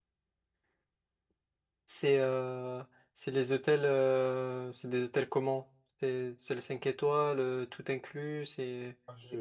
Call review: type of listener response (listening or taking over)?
taking over